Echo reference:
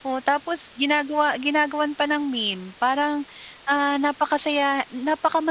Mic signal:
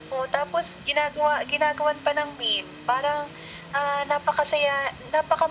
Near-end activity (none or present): none